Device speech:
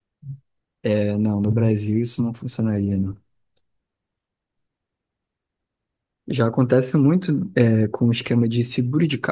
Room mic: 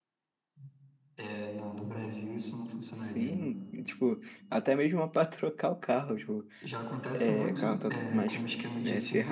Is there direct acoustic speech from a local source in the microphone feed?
Yes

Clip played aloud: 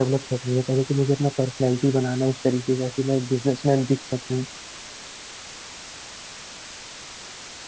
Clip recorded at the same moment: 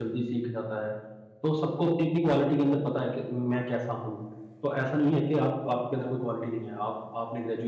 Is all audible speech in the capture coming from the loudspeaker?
No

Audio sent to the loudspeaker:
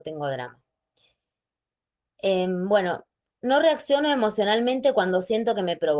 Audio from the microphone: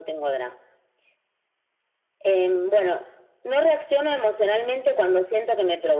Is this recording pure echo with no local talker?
Yes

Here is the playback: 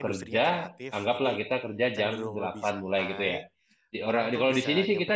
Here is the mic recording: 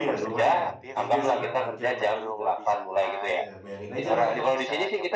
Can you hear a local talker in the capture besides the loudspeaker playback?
Yes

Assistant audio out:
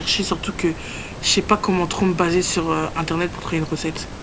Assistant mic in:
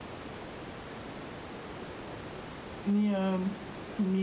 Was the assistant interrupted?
Yes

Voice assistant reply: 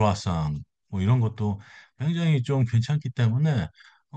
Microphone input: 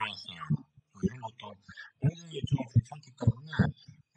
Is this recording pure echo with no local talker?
Yes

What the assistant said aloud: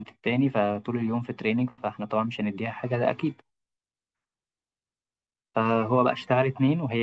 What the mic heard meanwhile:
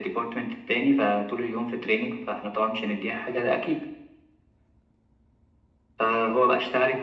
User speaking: No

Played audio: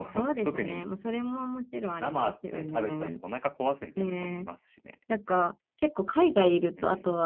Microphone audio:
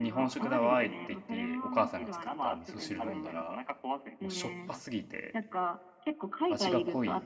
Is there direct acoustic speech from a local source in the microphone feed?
Yes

